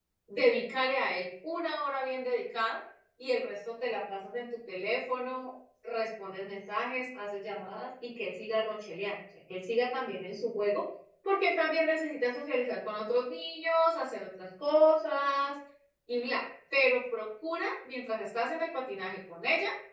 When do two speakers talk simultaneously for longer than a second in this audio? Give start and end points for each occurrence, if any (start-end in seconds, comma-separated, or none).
none